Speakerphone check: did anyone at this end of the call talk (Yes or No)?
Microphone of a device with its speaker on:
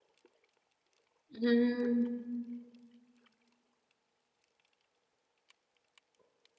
Yes